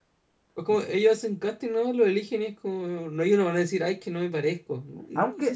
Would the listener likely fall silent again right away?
No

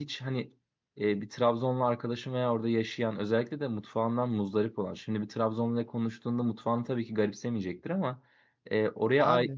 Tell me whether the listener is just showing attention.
Yes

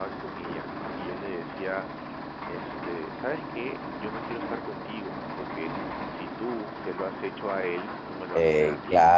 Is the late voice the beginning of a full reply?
Yes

